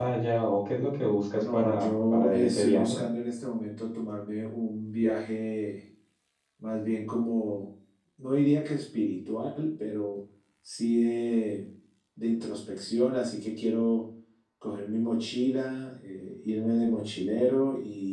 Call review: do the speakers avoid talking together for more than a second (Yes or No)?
No